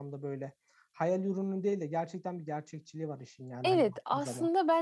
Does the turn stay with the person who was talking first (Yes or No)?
No